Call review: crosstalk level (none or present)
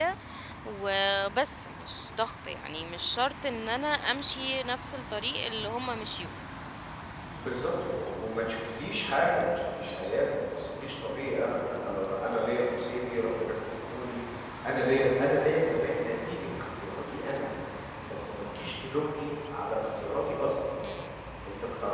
none